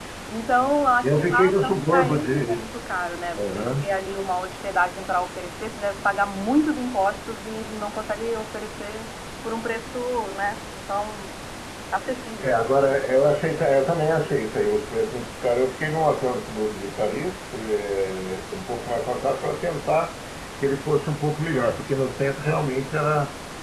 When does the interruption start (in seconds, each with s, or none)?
1.0 s